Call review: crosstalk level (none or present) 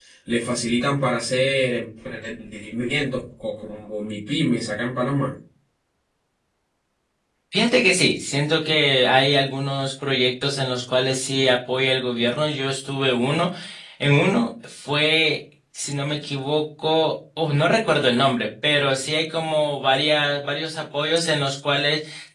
none